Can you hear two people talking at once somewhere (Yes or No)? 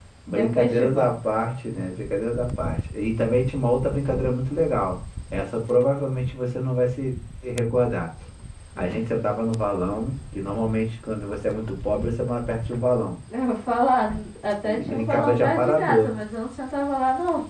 Yes